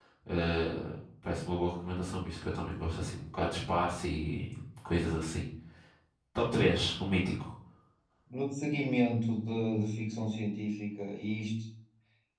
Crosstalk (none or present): none